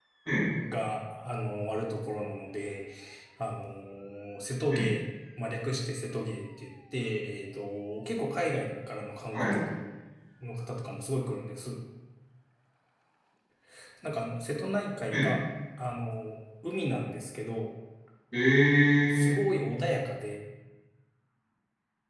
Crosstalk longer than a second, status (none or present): none